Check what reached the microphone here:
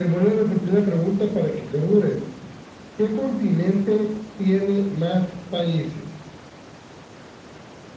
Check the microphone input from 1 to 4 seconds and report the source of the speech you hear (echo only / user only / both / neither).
echo only